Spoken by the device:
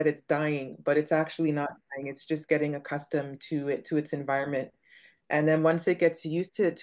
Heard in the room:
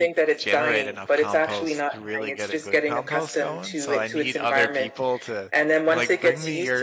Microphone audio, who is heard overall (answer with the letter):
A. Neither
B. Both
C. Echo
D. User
B